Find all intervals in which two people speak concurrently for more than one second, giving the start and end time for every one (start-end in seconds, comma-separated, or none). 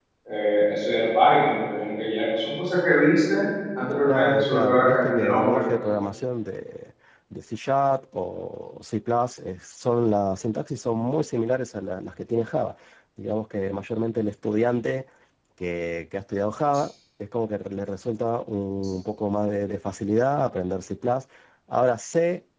4.1-5.6